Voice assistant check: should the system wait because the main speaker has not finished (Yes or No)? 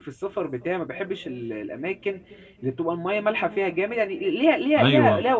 Yes